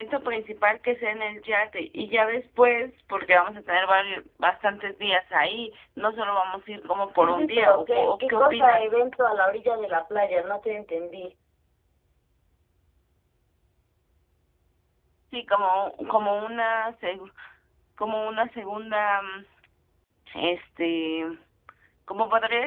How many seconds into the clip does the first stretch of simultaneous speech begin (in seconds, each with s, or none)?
7.2 s